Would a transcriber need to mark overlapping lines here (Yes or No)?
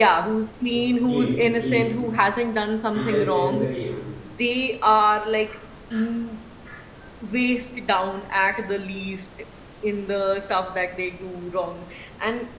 Yes